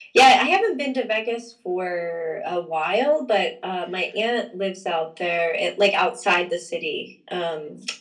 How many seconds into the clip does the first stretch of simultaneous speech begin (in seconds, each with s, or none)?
none